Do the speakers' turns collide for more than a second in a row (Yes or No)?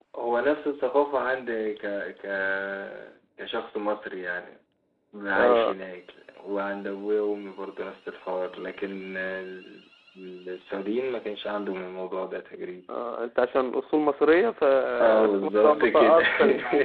Yes